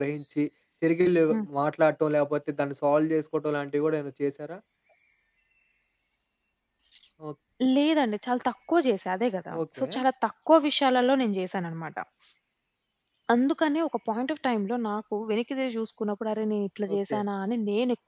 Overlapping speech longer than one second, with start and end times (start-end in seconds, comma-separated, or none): none